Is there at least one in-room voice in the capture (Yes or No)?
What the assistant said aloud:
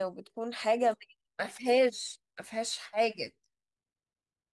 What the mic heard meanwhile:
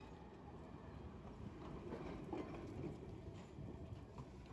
No